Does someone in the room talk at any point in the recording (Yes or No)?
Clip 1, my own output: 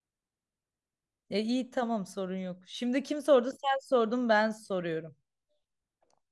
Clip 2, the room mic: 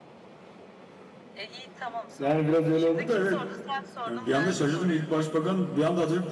Yes